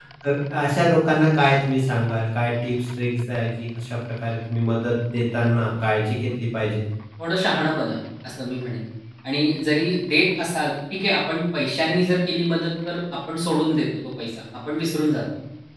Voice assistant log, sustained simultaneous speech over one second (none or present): none